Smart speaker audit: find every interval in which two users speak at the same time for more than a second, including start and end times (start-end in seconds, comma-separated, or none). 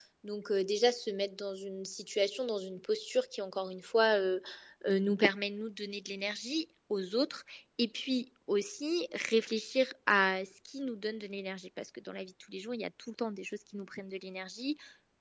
none